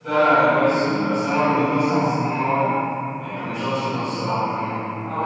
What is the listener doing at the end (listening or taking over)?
taking over